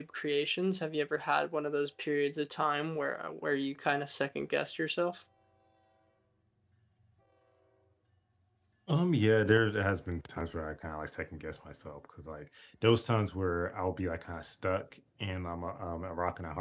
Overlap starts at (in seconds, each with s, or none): none